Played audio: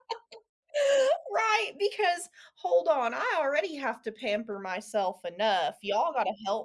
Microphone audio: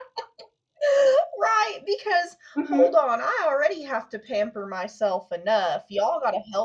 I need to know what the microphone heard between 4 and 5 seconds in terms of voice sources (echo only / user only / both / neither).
echo only